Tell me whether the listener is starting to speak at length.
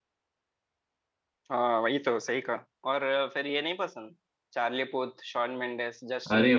Yes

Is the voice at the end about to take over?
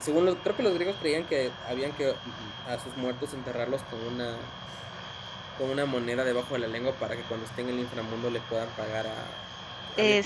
Yes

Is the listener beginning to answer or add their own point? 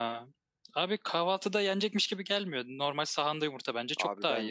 Yes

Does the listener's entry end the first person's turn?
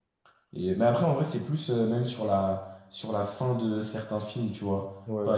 No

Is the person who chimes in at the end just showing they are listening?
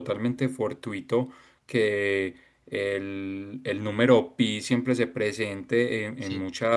Yes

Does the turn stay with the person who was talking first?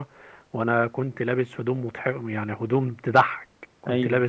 Yes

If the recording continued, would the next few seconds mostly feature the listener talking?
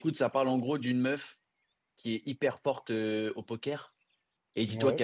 No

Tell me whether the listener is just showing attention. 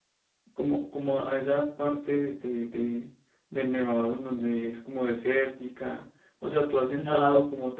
Yes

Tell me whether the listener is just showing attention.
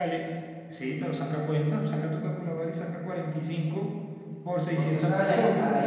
No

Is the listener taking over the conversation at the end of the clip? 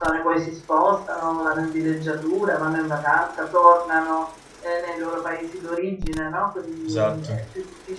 No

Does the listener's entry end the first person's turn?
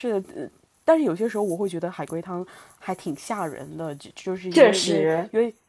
No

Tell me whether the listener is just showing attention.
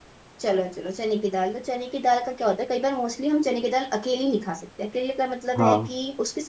Yes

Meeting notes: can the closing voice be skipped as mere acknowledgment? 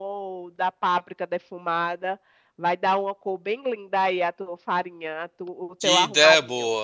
No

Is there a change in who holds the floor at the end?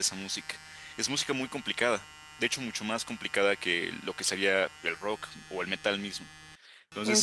No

